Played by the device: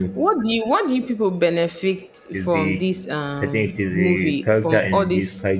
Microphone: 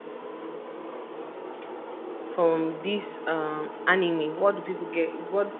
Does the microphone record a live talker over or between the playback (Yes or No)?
Yes